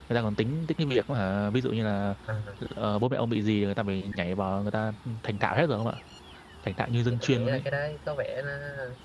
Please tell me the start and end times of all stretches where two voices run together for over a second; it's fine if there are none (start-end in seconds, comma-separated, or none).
none